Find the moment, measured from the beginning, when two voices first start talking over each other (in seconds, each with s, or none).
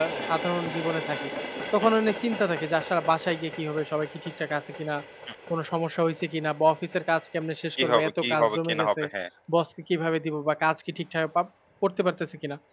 7.8 s